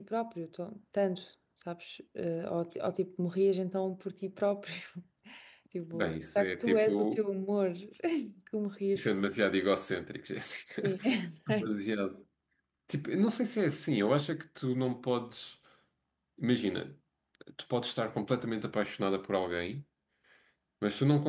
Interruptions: present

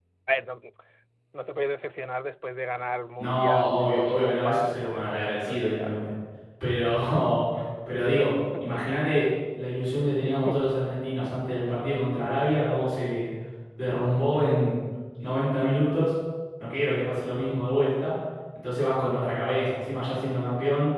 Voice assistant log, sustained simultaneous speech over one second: present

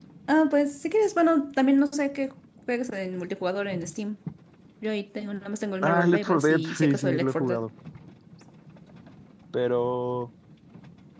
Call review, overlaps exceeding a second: present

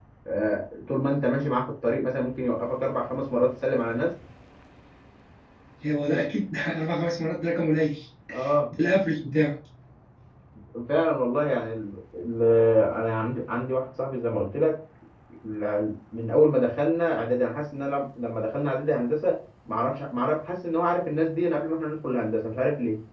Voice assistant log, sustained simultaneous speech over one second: none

